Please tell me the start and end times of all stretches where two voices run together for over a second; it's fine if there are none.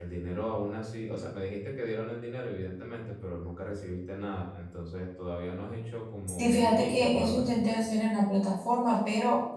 6.4-7.6

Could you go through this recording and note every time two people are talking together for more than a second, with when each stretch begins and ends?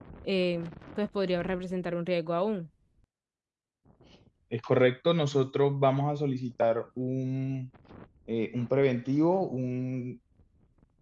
none

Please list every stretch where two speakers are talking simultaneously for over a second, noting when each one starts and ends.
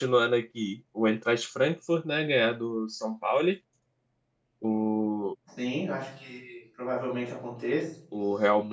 none

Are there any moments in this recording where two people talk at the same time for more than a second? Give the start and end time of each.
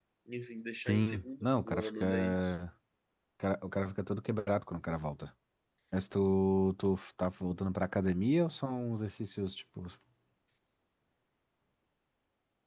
0.8-2.5

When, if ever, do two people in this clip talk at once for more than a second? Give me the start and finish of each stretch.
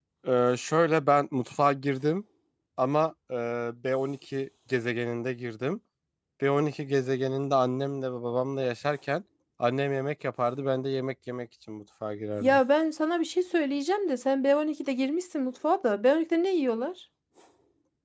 none

